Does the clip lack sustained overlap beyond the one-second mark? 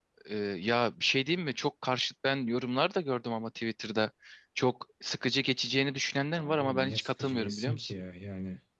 No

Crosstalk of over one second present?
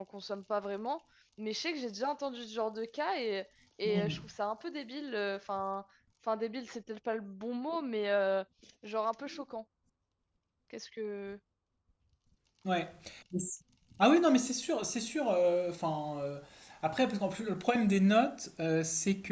No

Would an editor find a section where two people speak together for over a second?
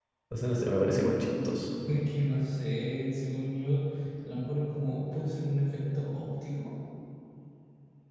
No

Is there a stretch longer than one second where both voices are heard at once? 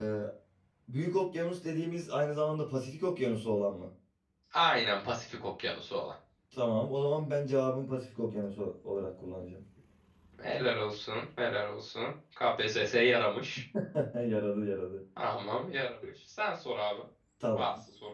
No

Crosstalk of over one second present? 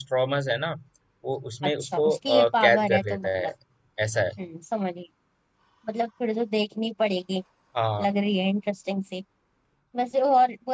Yes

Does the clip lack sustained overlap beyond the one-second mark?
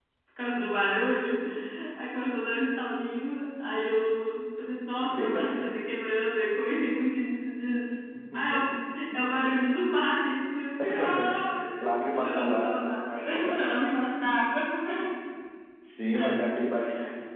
No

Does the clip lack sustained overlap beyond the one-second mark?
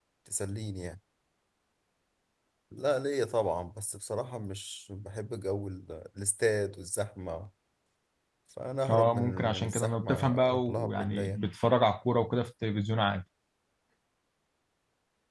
No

